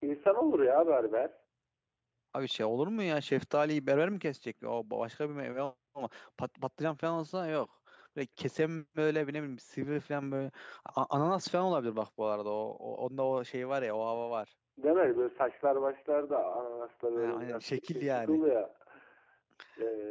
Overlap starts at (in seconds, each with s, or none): 17.2 s